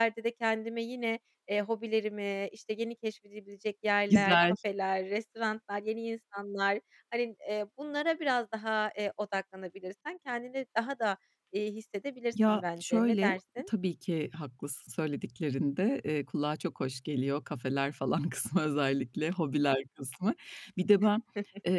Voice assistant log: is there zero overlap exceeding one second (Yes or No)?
No